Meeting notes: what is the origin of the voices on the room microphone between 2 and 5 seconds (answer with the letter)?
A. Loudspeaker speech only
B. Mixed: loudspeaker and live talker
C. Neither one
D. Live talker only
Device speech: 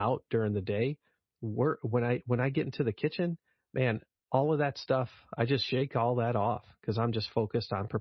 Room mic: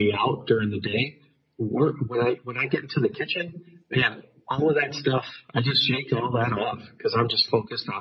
A